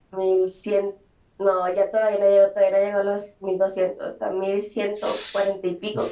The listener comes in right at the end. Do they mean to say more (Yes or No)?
Yes